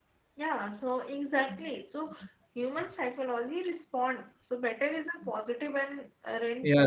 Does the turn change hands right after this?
Yes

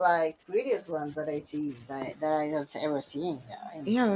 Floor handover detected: Yes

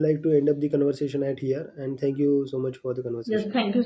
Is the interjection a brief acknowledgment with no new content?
No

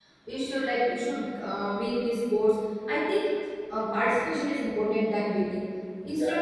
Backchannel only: Yes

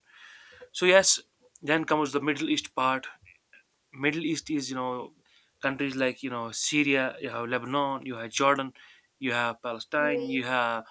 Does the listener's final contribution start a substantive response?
No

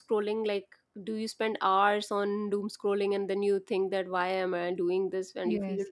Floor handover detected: Yes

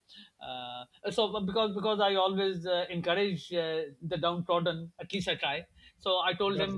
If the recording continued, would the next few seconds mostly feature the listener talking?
No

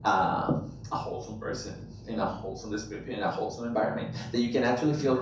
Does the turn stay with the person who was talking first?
Yes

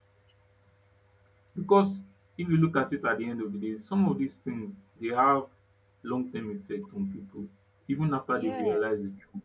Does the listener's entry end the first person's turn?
No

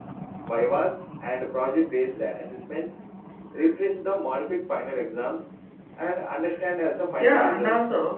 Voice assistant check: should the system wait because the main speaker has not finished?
No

